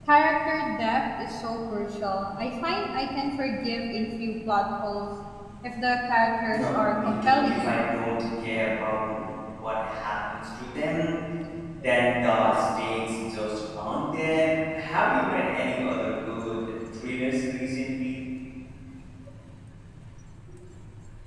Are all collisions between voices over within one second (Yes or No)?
No